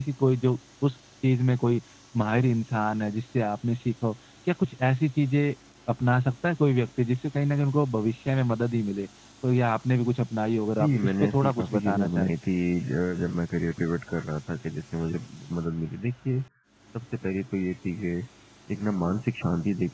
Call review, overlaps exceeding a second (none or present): present